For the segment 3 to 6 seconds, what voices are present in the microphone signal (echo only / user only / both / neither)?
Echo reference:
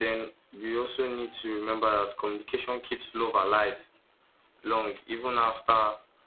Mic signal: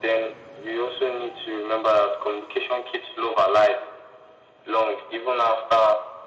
echo only